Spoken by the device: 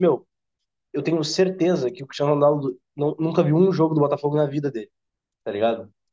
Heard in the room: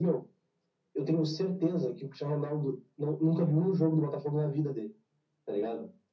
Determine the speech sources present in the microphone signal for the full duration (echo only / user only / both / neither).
echo only